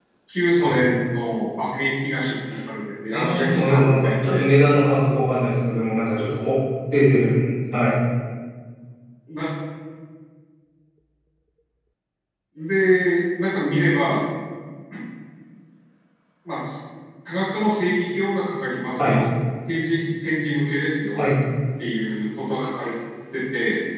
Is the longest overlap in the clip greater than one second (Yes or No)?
Yes